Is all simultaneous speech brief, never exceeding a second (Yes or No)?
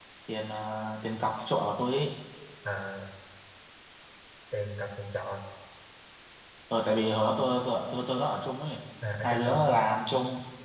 Yes